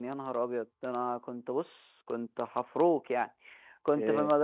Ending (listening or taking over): listening